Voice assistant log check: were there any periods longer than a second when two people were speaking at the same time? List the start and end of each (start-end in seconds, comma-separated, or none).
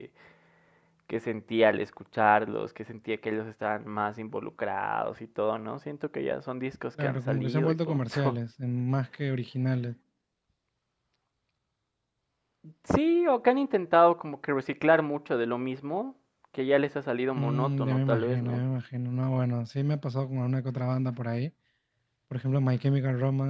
7.0-8.4, 17.4-18.6